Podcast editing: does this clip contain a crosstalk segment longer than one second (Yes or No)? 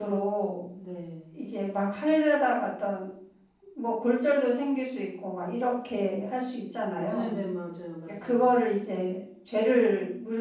No